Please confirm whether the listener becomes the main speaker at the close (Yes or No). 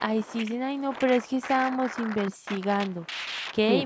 No